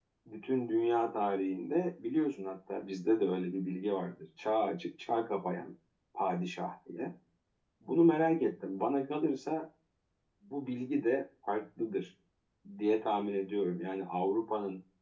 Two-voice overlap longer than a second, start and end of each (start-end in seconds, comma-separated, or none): none